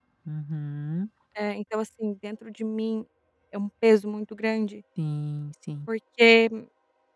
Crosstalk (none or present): none